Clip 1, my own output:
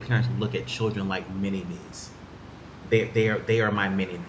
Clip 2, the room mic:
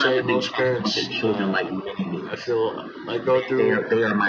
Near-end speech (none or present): present